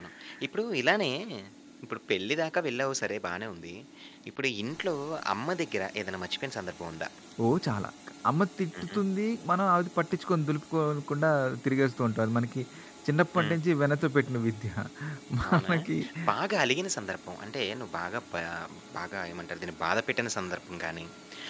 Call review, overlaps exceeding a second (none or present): none